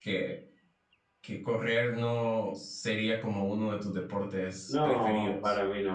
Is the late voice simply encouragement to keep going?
No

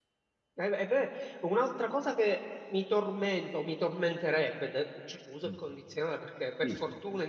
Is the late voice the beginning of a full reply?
No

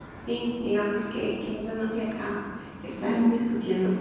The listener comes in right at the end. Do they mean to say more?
No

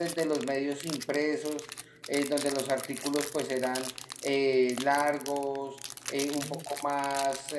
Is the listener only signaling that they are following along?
Yes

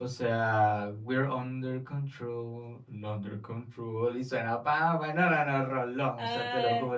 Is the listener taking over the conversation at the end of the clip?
No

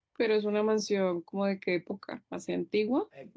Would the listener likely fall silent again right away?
No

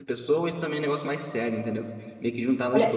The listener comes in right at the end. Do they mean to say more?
Yes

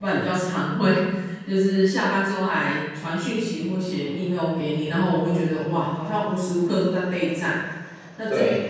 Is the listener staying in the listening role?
Yes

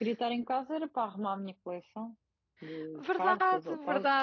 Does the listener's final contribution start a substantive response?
Yes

